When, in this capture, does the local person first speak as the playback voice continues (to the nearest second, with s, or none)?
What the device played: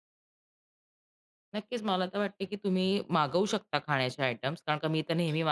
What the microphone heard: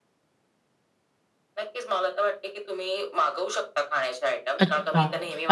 5 s